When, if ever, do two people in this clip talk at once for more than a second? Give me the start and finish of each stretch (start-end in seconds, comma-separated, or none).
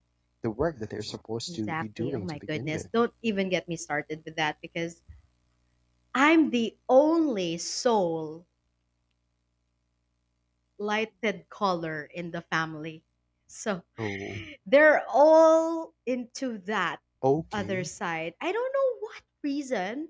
1.5-2.8